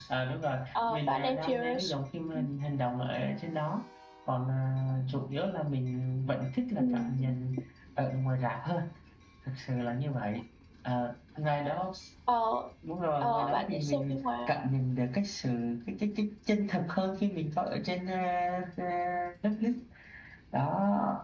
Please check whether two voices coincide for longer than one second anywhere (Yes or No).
Yes